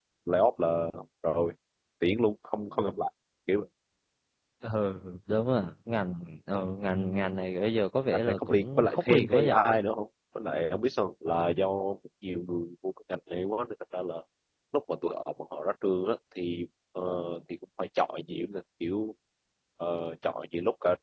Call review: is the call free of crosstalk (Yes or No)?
No